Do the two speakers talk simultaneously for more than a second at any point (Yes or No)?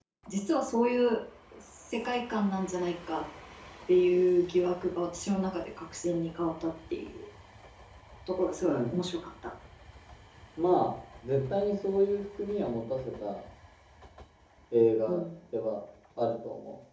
No